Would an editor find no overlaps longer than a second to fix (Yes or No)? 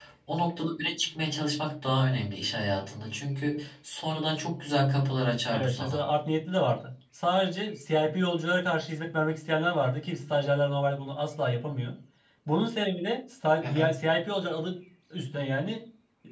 Yes